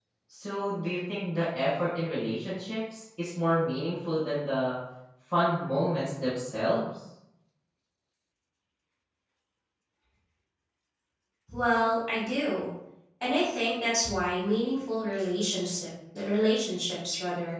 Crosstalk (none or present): none